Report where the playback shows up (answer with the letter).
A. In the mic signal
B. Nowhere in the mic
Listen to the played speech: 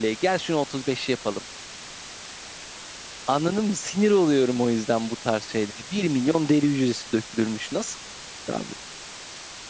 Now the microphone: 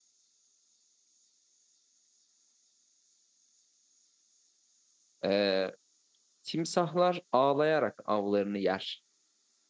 B